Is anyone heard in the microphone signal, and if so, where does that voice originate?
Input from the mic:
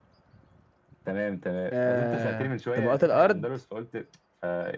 both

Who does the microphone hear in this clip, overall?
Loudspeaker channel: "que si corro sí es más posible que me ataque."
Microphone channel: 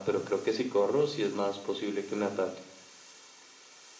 echo only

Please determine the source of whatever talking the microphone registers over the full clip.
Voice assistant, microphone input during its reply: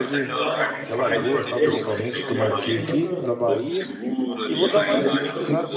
both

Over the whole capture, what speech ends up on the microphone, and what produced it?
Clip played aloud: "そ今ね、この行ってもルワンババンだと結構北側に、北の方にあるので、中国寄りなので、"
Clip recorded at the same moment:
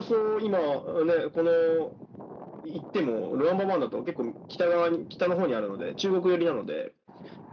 echo only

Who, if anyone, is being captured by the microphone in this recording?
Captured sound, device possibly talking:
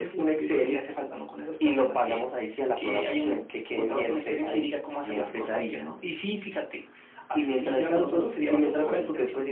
both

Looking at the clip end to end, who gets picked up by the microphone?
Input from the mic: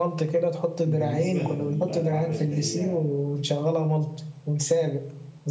both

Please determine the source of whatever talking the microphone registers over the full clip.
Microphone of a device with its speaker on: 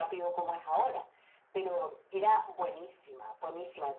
echo only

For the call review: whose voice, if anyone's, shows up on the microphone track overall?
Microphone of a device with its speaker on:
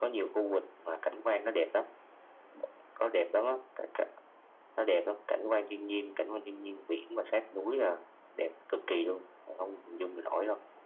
echo only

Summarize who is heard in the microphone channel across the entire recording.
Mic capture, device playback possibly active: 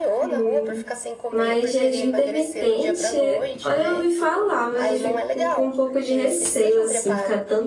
both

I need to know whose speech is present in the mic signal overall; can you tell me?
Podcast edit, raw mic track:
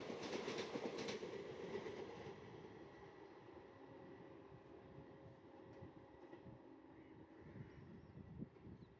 neither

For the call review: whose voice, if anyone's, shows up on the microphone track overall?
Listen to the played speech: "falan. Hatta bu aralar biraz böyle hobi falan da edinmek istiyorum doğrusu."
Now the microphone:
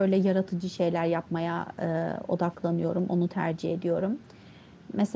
user only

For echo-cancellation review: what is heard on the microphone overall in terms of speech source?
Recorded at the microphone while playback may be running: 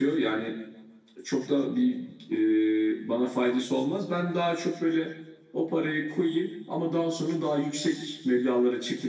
echo only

